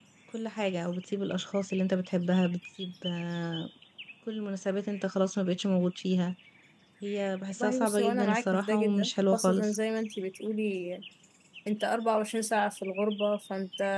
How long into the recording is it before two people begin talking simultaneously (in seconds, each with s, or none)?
7.6 s